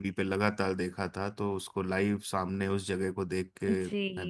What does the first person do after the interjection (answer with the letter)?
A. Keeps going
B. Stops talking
B